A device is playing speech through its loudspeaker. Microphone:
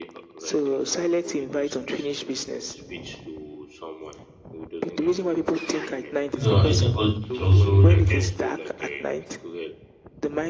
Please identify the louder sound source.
user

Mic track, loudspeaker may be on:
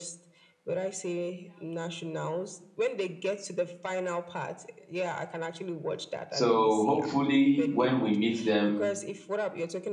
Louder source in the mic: user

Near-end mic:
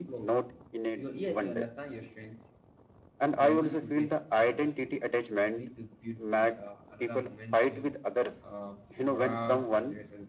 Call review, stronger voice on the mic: echo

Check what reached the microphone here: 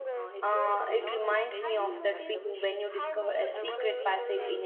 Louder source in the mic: user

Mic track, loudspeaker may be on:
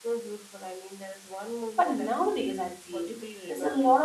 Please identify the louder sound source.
user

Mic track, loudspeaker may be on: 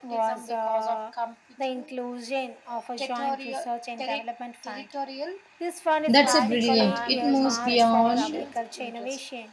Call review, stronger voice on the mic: user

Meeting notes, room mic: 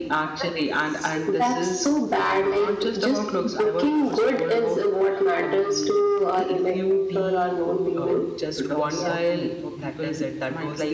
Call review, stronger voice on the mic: echo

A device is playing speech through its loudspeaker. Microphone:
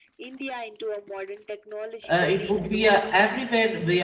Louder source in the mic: user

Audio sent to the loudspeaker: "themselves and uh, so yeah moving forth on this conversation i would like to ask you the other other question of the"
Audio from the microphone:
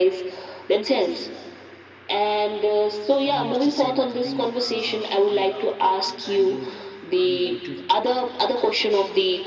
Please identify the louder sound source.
echo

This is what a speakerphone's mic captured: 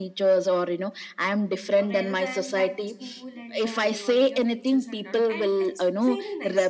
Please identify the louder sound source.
echo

